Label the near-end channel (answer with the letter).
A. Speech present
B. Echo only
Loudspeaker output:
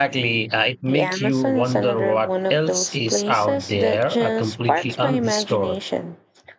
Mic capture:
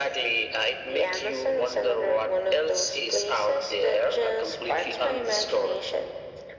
B